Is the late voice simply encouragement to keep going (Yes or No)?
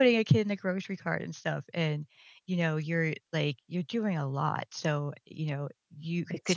Yes